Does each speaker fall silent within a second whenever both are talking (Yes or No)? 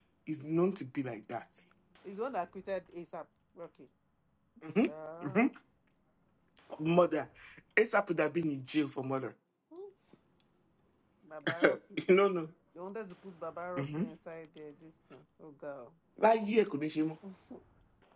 Yes